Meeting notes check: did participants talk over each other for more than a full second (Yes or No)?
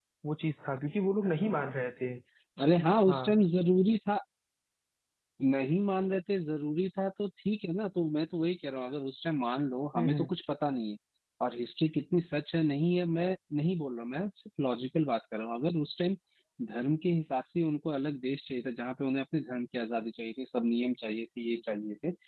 No